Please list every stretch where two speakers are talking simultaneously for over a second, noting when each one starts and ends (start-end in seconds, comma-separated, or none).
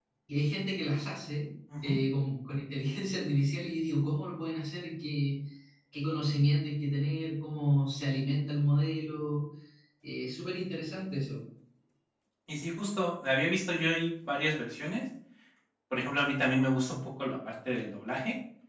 none